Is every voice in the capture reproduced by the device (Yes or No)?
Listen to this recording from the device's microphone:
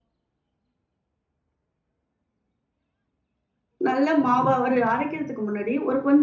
No